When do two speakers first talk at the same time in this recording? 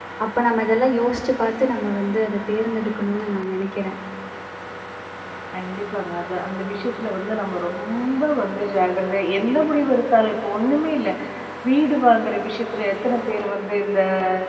none

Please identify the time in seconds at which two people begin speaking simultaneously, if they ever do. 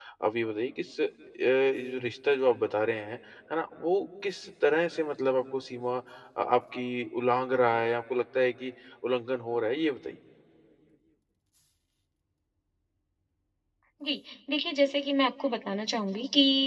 none

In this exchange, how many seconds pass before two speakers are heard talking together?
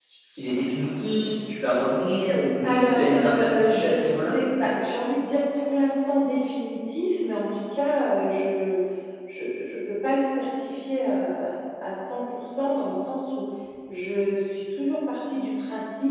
2.6 s

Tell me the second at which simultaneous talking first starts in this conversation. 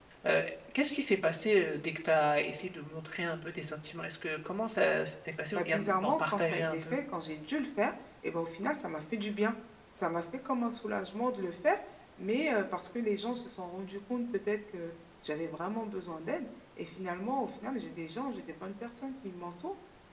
5.5 s

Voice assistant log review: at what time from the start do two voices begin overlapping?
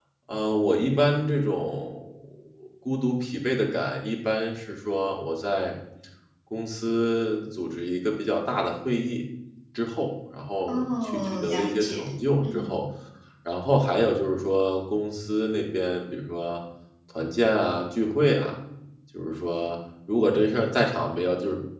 10.7 s

